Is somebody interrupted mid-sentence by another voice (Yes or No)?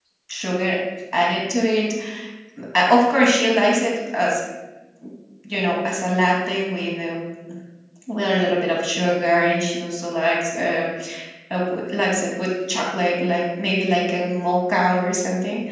No